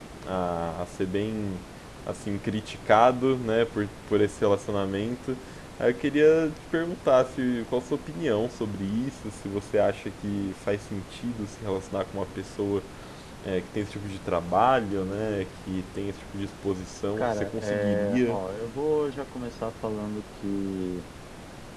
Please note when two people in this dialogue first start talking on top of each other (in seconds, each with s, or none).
17.2 s